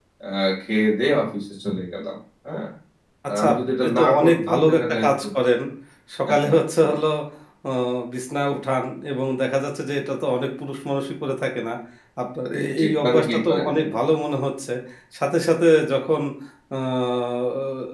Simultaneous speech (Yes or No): Yes